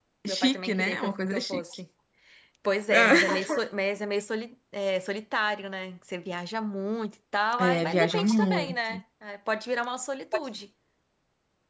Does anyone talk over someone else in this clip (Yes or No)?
Yes